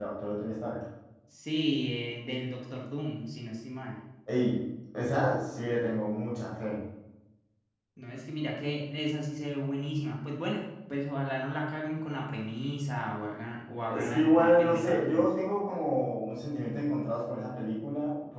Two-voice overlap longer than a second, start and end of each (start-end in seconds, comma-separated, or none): 13.9-15.3